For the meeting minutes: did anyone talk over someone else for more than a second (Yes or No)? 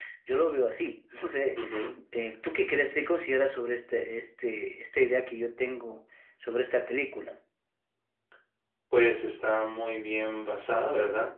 No